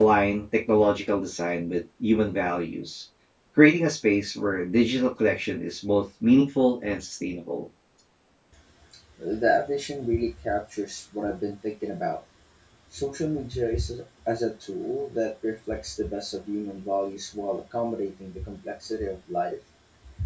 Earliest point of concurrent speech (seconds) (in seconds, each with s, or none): none